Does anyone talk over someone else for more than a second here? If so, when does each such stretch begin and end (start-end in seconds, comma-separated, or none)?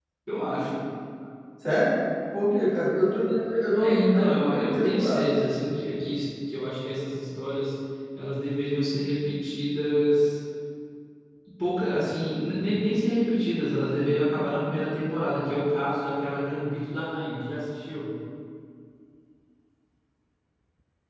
3.8-5.3